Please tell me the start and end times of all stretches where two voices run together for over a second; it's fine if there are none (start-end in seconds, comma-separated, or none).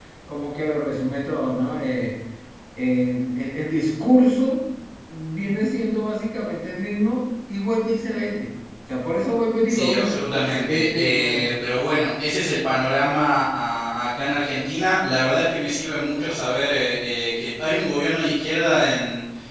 9.7-11.5